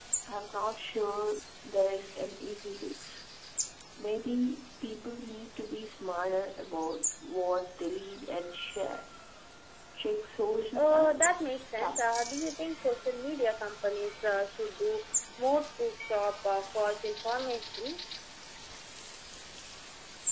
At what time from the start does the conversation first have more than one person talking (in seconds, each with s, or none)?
10.8 s